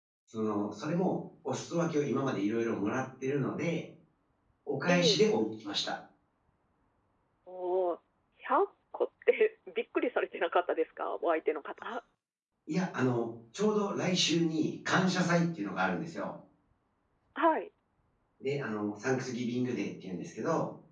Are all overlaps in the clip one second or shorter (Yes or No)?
Yes